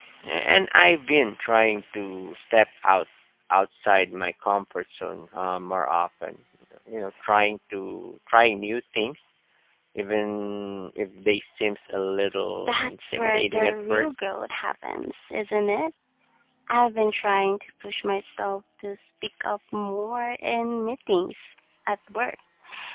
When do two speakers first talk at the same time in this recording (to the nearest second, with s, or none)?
13 s